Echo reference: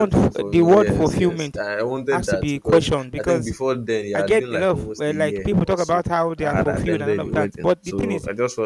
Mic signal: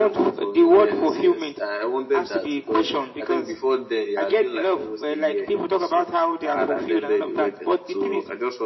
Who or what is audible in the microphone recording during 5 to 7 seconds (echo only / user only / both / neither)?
echo only